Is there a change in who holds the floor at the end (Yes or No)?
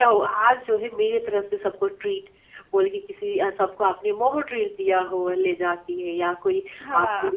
No